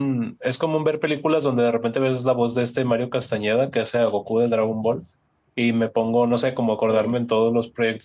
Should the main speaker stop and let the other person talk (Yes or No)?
No